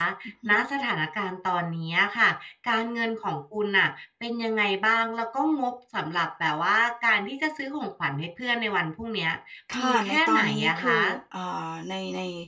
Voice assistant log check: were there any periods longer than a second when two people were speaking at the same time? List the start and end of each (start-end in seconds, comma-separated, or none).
9.8-11.0